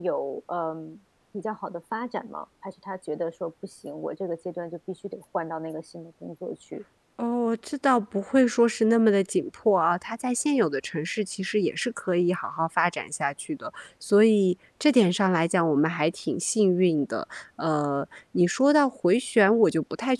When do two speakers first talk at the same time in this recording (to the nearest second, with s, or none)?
none